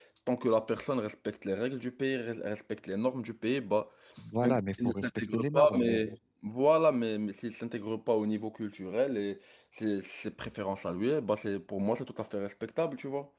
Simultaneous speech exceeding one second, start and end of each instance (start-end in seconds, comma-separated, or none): 4.4-6.1